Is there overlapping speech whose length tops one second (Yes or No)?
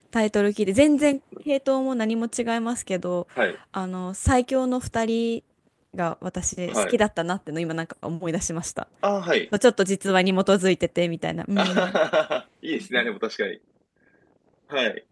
No